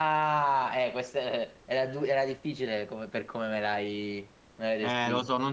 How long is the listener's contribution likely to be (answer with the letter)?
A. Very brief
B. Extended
B